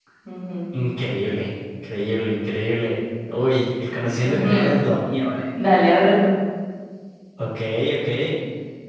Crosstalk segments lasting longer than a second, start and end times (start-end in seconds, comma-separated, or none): none